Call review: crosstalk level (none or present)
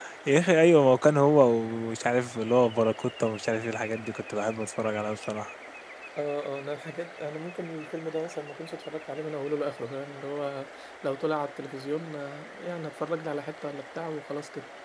none